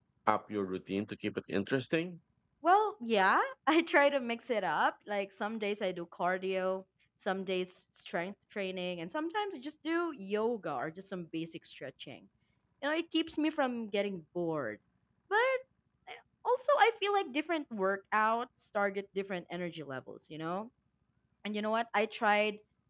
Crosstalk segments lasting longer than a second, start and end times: none

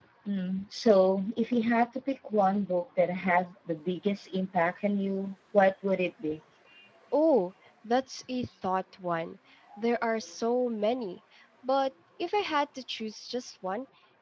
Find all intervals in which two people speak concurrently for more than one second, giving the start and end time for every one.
none

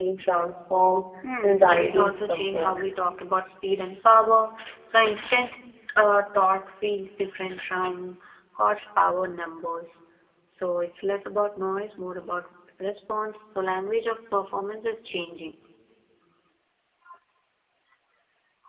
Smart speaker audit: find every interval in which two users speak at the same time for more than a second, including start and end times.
1.4-2.8

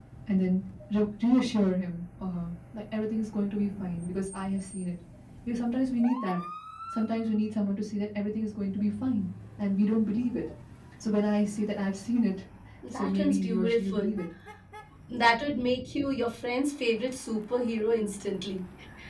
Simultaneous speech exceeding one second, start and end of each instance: 12.9-14.2

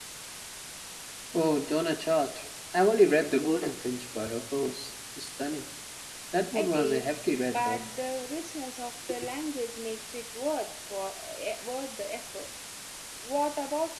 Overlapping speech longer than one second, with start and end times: 6.5-7.8

